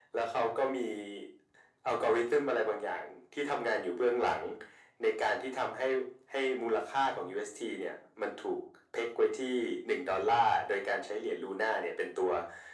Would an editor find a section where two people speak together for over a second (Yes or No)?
No